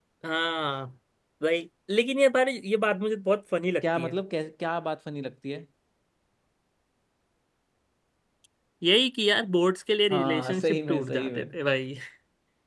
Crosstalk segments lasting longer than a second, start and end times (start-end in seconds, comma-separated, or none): 10.1-11.5